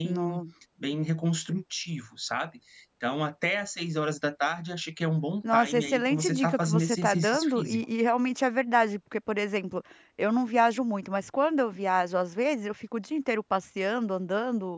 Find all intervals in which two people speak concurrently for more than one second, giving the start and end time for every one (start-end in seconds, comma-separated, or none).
5.5-7.8